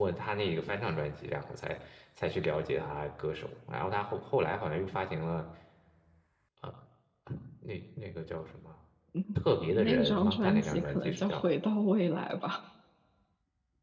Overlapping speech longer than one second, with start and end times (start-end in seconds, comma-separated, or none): 9.7-11.4